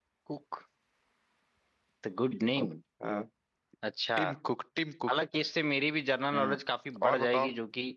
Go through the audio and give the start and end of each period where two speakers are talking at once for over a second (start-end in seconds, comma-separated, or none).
none